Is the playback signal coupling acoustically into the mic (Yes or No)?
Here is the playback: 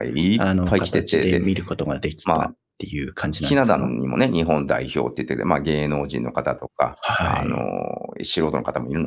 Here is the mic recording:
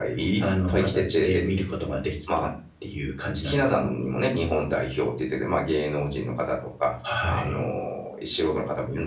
Yes